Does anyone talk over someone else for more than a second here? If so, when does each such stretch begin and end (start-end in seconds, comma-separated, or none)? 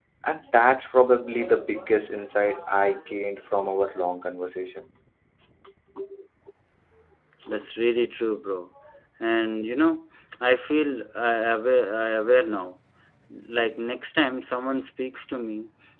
none